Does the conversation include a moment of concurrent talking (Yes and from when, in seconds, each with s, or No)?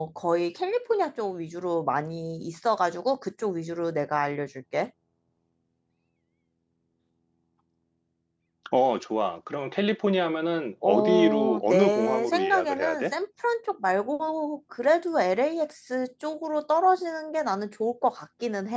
Yes, from 10.8 s